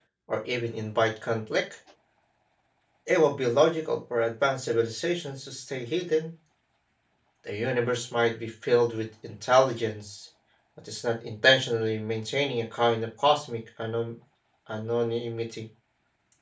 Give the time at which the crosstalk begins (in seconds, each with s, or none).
none